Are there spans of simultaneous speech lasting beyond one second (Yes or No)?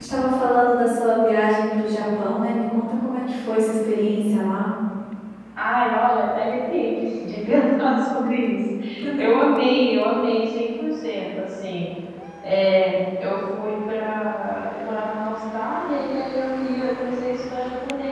No